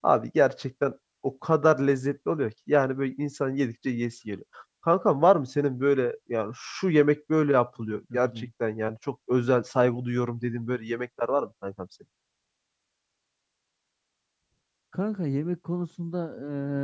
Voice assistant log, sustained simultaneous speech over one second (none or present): none